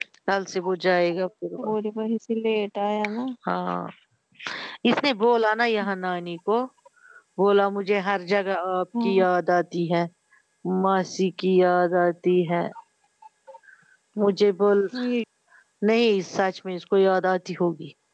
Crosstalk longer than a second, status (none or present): none